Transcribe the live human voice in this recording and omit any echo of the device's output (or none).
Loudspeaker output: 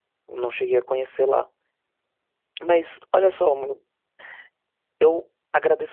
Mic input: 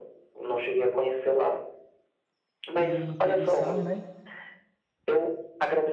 interessar, né,